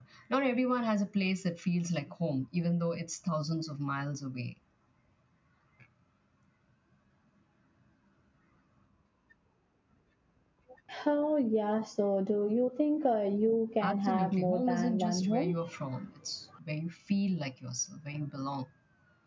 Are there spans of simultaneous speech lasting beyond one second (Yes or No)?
Yes